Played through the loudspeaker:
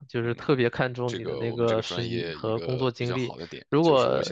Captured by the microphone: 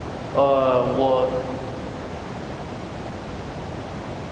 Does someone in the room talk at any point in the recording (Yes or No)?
Yes